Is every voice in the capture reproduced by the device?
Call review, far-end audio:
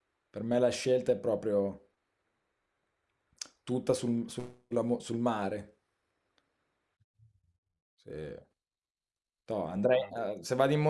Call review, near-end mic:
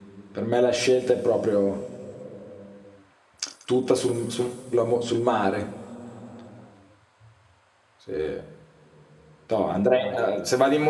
Yes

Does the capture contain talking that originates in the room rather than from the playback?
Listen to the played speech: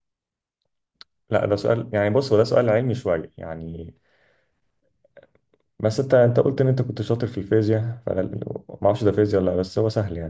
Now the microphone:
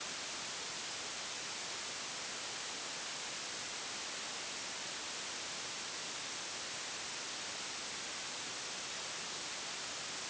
No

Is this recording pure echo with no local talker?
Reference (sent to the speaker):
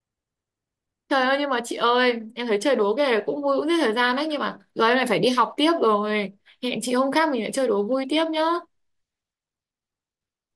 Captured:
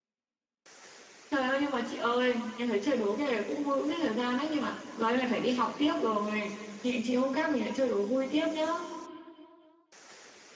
Yes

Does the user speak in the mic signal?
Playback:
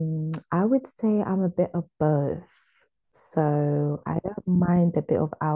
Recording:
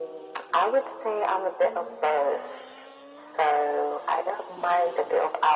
No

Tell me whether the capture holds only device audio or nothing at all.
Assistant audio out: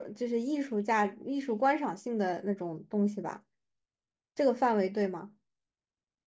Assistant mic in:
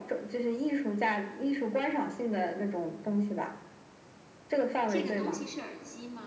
No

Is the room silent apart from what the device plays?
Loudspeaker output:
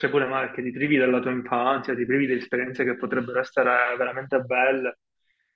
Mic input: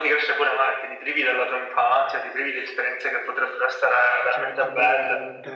No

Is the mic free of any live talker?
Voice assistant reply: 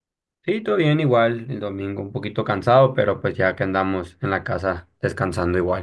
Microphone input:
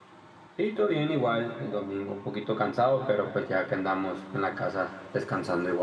Yes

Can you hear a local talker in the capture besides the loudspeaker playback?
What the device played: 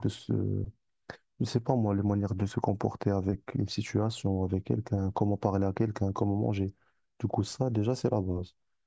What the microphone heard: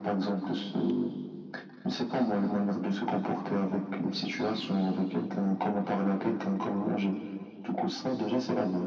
No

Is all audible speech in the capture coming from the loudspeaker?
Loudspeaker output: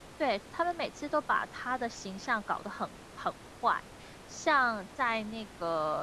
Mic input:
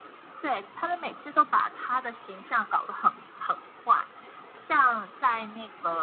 Yes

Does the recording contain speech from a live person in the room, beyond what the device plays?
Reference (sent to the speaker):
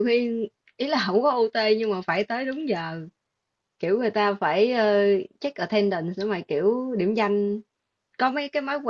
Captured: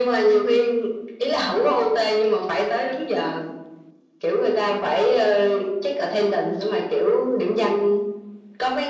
No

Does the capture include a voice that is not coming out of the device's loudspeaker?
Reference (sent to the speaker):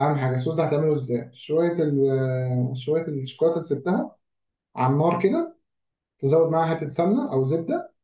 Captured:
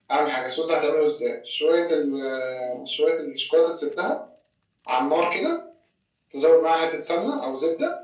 No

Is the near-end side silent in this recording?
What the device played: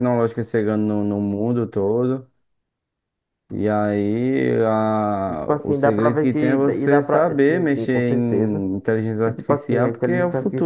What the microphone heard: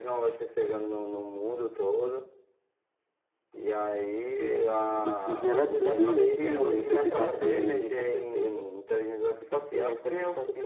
No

